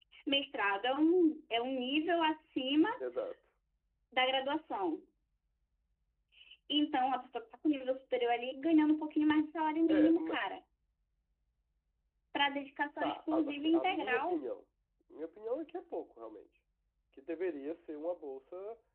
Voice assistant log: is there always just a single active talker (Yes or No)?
No